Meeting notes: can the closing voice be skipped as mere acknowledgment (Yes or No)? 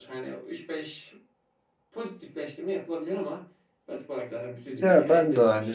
No